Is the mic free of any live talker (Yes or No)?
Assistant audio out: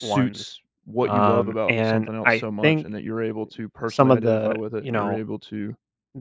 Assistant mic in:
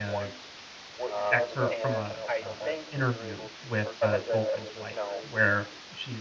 No